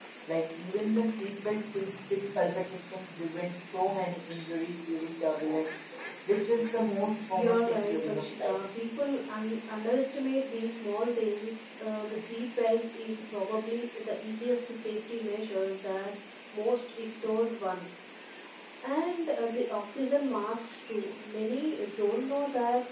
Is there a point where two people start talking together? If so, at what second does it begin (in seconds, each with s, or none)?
7.3 s